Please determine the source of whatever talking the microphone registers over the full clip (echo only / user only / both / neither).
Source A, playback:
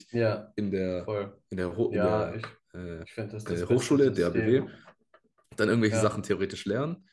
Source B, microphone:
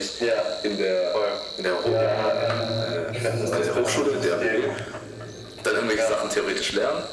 both